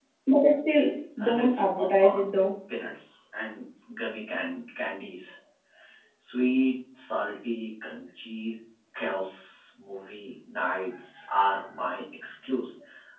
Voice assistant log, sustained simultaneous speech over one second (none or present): present